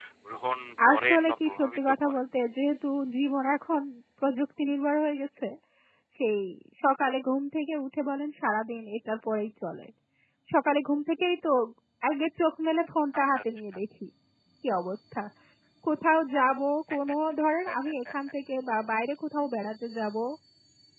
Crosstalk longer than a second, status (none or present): present